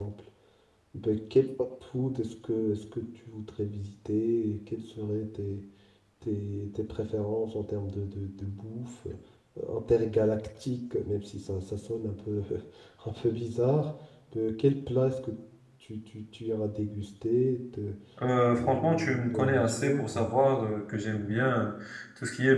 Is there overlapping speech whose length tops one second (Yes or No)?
Yes